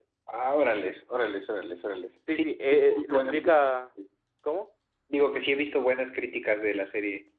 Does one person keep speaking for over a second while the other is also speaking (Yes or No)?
Yes